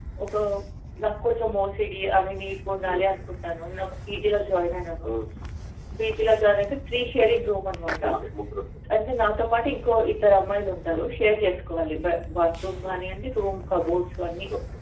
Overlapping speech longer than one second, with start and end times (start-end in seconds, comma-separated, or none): none